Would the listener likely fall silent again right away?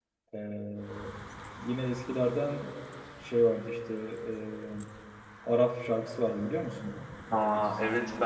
No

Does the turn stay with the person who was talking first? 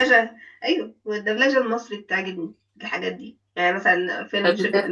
Yes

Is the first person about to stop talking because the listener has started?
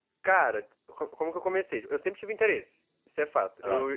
No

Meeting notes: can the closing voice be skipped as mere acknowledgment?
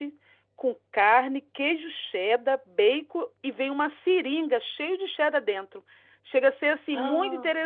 Yes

